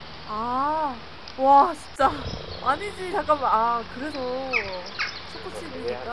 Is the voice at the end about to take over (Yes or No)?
No